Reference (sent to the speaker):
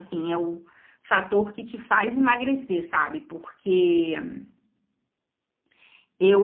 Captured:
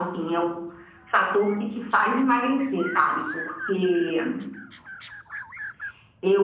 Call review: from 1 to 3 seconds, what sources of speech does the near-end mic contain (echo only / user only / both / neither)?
echo only